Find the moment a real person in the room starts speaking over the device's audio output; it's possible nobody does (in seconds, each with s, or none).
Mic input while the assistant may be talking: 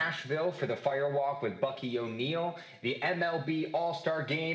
none